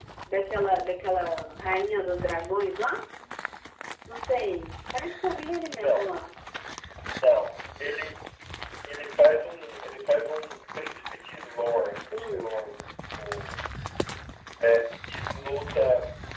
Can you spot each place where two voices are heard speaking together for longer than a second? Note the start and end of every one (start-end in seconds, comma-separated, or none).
none